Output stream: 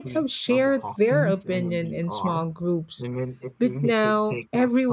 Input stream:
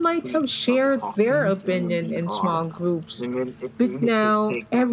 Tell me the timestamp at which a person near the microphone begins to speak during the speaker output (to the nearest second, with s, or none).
none